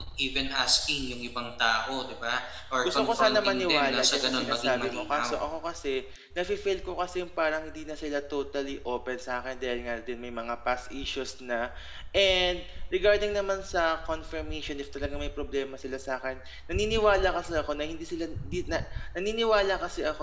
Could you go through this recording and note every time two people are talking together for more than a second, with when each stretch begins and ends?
2.8-5.4

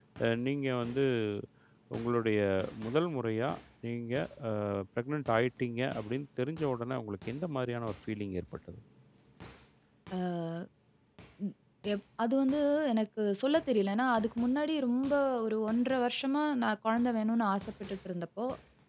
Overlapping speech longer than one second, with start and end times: none

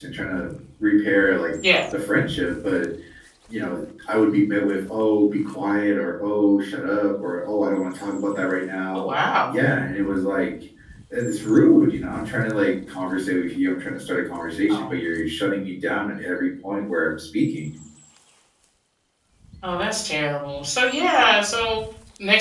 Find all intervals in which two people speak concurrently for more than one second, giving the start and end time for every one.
none

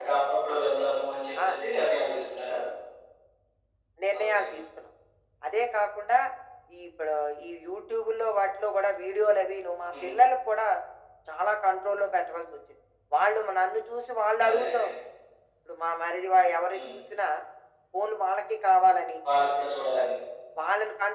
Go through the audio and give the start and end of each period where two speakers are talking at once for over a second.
none

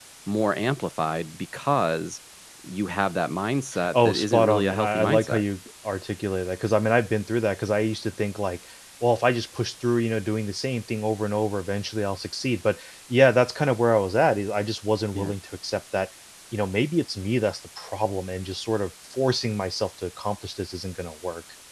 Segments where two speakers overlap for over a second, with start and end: 3.9-5.4

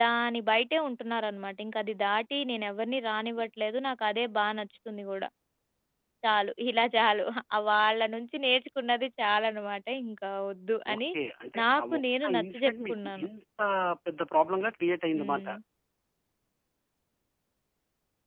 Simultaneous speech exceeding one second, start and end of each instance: 11.6-13.3

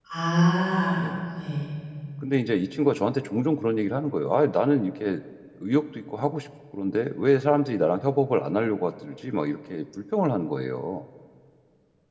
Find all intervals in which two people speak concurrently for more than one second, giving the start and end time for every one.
none

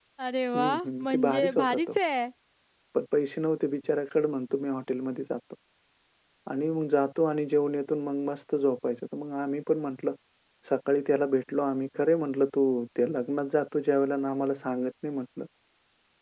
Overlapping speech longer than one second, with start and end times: 0.6-1.9

